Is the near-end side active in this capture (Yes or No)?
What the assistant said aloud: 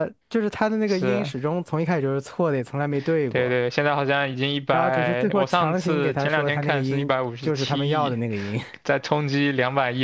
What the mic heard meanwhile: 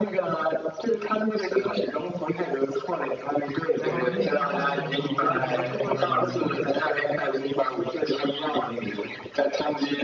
Yes